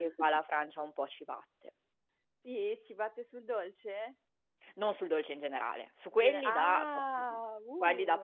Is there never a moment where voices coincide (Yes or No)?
No